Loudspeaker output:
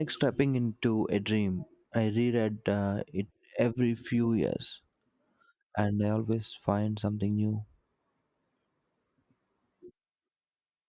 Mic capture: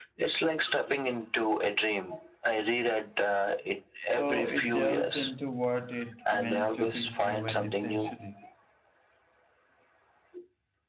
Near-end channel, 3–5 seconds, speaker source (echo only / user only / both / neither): both